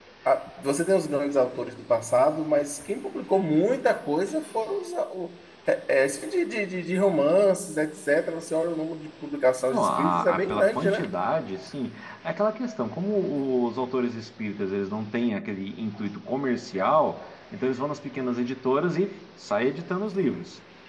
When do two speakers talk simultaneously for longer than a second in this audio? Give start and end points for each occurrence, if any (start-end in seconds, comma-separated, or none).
9.7-11.0